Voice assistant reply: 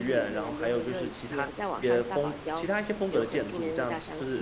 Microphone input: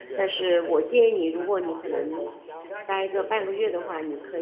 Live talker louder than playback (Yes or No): Yes